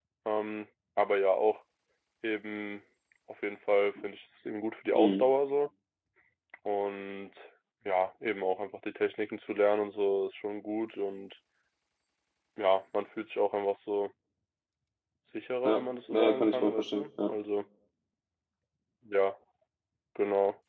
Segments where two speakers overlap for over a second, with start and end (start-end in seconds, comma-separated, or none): 15.7-17.3